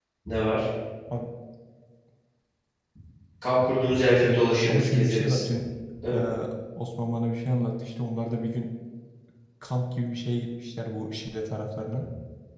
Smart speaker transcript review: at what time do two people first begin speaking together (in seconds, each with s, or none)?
4.2 s